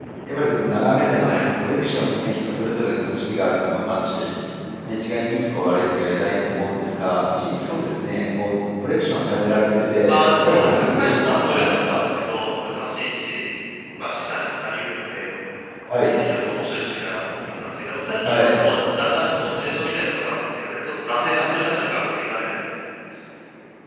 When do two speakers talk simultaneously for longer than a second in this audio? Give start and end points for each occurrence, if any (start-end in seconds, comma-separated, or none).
10.1-12.0